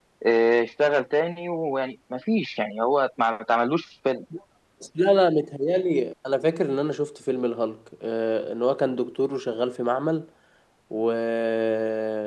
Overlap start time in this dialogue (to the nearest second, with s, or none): none